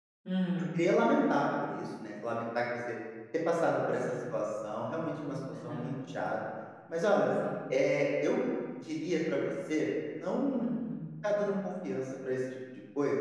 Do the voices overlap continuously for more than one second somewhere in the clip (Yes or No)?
No